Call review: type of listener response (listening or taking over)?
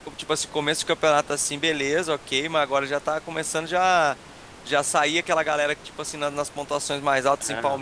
listening